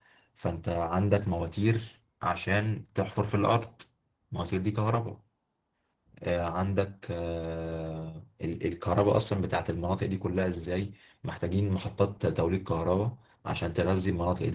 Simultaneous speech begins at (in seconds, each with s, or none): none